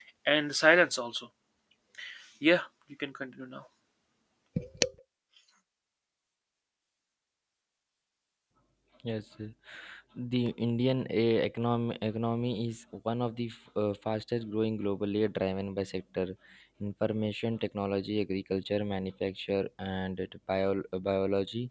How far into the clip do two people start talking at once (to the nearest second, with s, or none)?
none